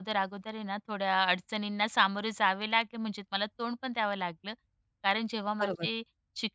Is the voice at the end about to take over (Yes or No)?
No